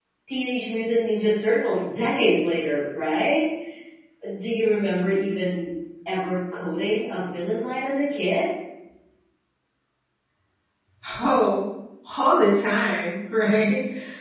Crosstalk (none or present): none